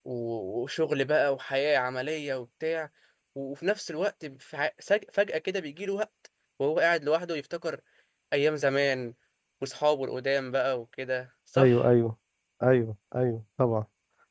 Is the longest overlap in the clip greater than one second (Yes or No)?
No